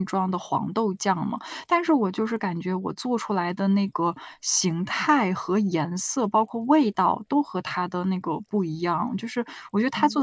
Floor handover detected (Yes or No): No